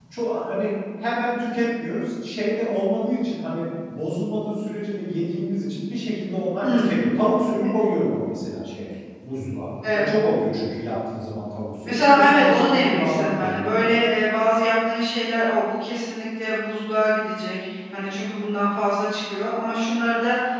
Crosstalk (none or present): present